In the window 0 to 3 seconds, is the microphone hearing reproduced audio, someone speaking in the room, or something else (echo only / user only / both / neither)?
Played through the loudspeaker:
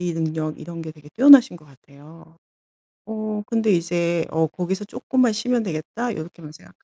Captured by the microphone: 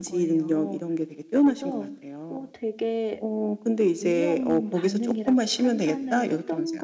both